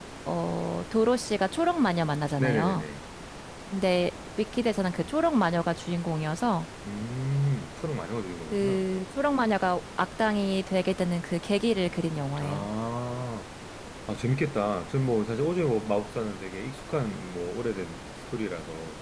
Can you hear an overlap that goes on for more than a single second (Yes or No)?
No